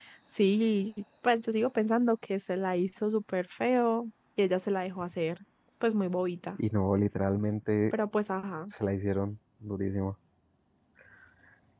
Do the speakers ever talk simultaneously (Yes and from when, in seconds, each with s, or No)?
No